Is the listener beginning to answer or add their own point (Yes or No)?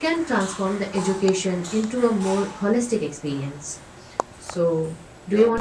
Yes